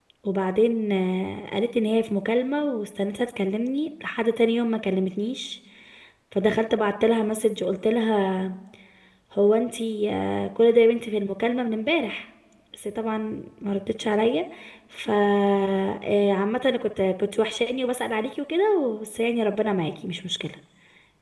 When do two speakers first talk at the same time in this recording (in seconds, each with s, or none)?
none